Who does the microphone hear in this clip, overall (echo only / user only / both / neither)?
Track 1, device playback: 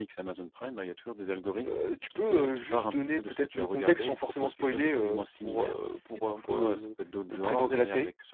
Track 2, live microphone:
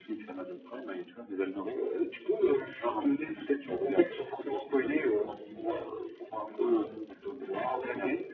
echo only